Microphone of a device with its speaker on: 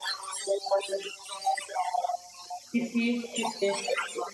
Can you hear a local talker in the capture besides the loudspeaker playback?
Yes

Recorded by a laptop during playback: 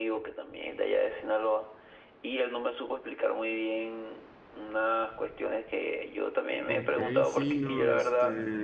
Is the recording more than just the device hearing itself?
Yes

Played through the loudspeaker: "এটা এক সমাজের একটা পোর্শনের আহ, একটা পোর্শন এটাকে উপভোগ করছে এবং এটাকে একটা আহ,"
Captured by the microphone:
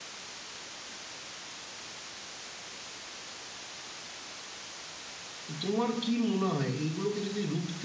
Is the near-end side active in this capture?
Yes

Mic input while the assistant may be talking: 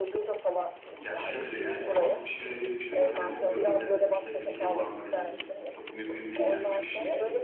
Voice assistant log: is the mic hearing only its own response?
No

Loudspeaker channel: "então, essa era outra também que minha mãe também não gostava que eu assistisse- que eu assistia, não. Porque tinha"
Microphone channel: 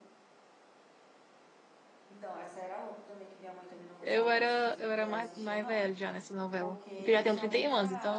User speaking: Yes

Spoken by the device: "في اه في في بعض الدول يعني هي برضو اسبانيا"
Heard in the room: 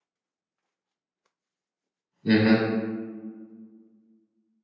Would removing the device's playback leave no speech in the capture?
No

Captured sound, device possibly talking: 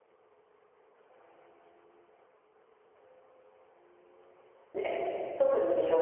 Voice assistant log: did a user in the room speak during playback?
Yes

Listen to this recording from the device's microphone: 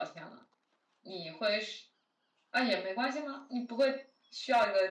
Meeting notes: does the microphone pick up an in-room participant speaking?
Yes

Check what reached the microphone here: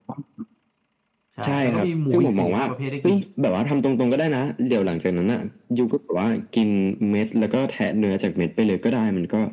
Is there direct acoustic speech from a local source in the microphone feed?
Yes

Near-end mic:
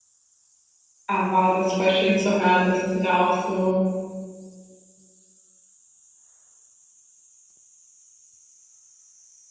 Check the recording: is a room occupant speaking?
Yes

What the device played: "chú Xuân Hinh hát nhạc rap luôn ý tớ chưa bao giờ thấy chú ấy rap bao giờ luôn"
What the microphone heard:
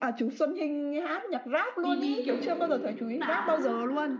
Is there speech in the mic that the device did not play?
Yes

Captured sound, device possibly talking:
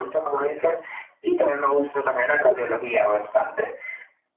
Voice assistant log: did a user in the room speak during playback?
No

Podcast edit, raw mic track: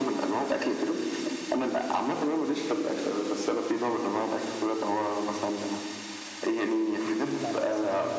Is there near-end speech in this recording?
Yes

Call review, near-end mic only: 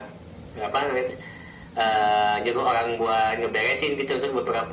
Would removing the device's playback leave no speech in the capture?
Yes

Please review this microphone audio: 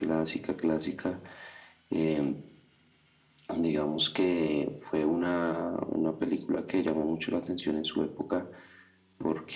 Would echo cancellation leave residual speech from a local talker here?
No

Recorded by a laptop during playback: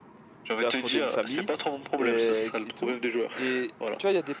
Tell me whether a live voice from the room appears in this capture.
Yes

